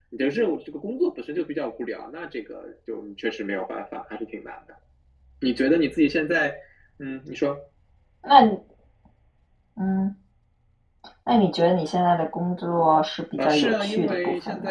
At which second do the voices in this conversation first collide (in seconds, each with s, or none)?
13.4 s